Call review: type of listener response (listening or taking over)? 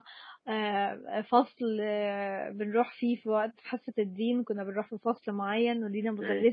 listening